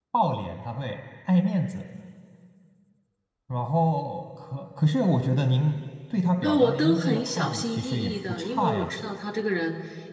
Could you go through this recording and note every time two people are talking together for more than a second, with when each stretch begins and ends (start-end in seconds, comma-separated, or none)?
6.4-8.9